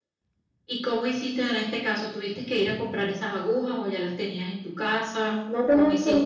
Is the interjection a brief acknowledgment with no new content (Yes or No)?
No